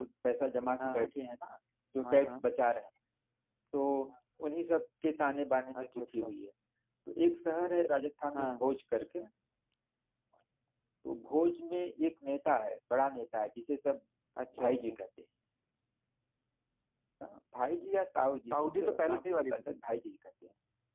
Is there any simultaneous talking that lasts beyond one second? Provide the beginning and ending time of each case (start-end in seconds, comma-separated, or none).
18.5-19.8